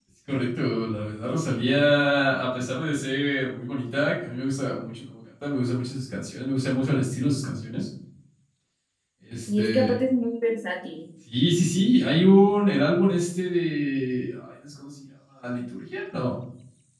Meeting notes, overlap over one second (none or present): none